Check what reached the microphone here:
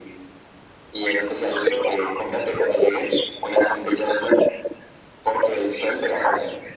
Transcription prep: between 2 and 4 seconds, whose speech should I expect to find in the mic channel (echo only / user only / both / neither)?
echo only